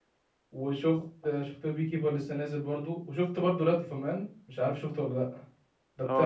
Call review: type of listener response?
taking over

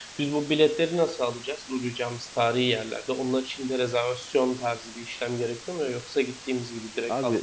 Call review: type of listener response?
taking over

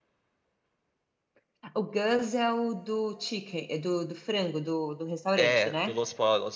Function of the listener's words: taking over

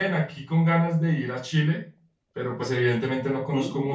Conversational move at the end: listening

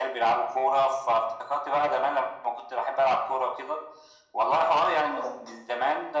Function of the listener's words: listening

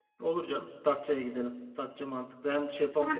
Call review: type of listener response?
taking over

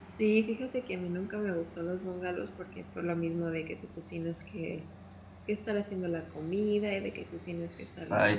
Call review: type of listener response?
taking over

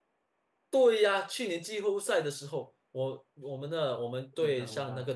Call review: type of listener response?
listening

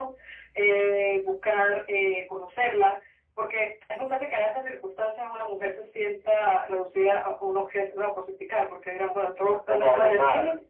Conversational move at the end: listening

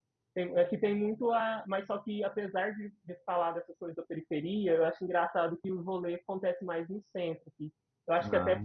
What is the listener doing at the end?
listening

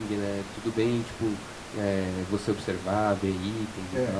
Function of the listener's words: taking over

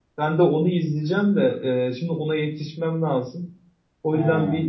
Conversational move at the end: listening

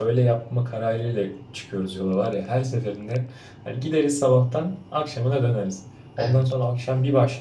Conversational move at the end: listening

